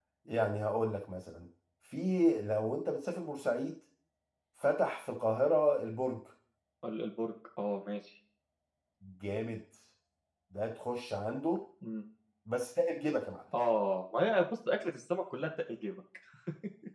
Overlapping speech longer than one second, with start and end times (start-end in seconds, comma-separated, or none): none